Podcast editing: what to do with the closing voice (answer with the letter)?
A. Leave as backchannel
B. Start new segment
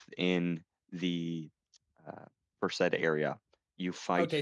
B